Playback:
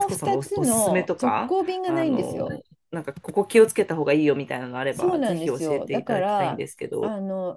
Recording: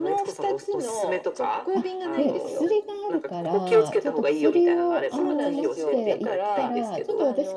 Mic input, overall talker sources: both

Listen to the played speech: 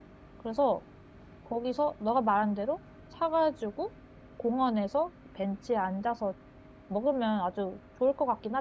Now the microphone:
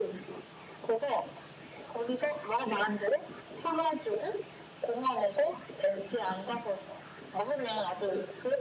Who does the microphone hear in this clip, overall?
echo only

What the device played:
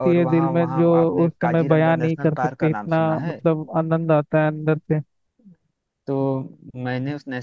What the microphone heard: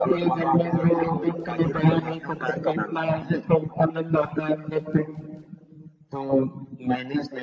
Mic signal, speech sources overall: echo only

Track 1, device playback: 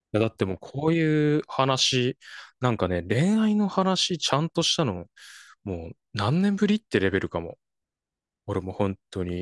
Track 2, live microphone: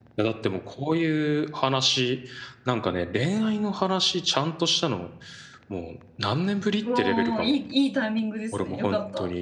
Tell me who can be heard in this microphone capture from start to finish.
both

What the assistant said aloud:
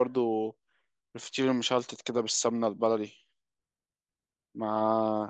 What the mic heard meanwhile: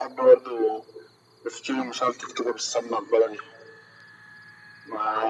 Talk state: echo only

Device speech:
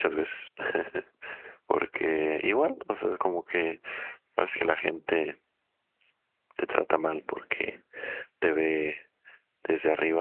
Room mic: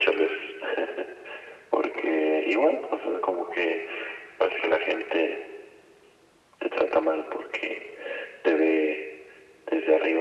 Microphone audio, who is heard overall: echo only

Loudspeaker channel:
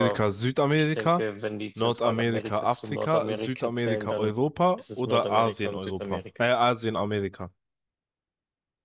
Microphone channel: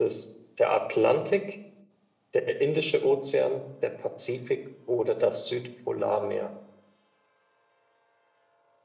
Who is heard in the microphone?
user only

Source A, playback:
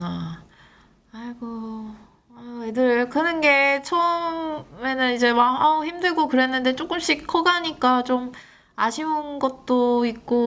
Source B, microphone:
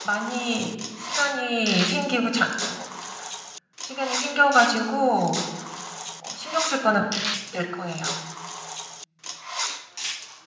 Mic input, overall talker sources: user only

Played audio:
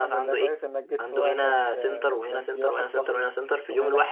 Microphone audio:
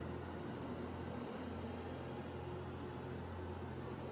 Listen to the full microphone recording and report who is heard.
neither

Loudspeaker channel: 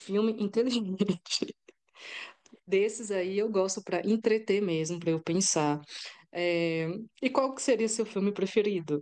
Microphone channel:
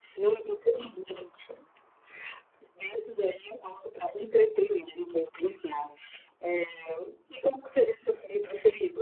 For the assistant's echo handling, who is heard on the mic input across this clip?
echo only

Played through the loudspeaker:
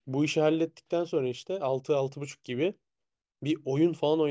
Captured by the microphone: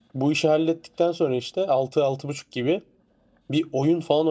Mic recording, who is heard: echo only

